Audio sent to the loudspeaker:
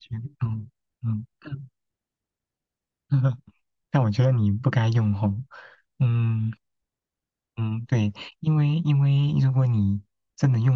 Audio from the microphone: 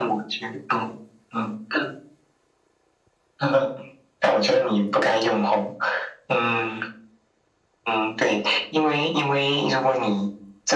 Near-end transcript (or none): none